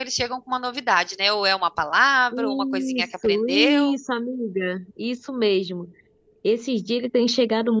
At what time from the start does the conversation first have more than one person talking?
2 s

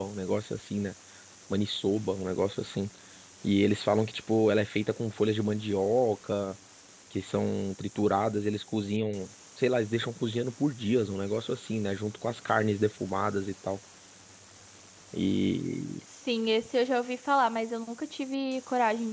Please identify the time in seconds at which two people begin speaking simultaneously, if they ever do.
none

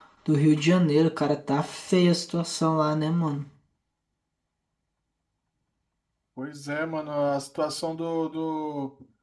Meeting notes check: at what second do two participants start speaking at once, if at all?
none

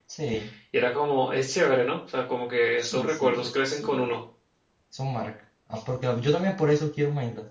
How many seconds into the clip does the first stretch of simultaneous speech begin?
3 s

